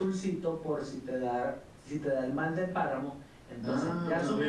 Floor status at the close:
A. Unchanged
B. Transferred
B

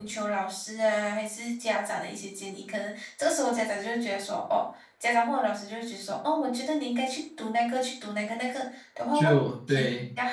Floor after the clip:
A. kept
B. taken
A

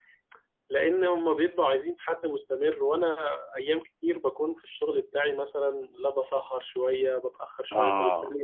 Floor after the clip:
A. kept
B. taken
A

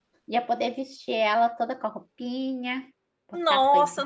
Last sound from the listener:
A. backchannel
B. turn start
B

